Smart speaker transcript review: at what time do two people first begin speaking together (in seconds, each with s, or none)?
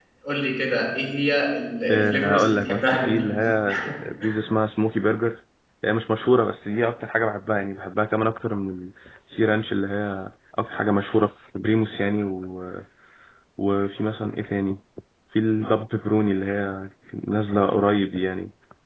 1.8 s